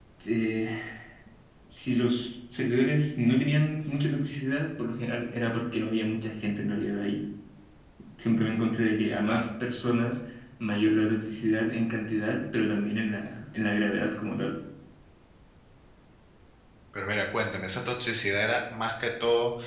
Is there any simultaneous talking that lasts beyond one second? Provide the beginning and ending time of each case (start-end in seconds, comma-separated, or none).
none